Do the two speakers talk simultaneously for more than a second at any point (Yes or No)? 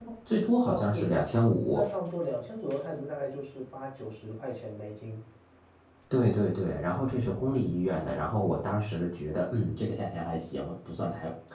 No